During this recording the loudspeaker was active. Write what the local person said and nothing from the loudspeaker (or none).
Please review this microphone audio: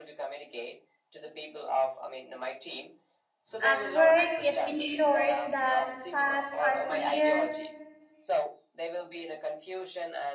At work, it ensures that tasks are clear,